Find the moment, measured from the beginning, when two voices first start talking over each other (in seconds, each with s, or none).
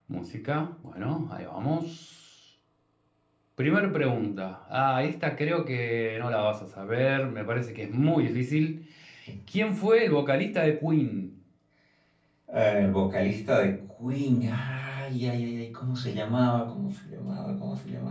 none